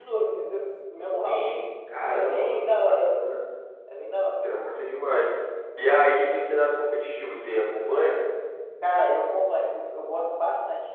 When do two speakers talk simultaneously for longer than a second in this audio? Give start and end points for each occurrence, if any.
2.1-3.3

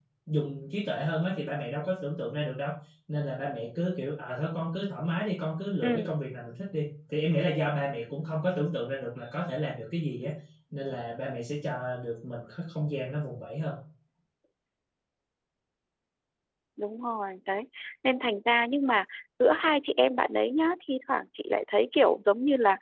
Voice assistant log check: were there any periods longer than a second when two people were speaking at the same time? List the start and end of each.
none

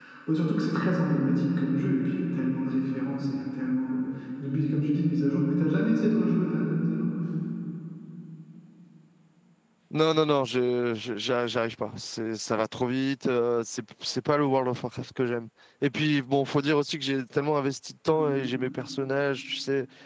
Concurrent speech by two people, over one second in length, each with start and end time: none

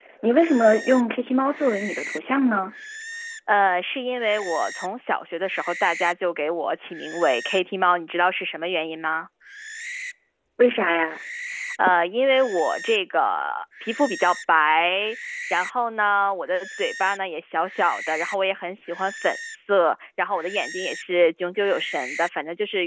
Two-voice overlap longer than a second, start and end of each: none

